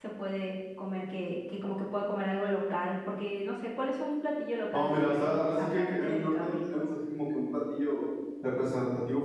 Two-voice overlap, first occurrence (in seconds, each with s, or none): 4.7 s